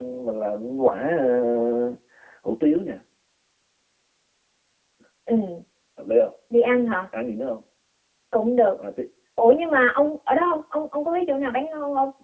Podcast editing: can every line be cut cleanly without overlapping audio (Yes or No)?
Yes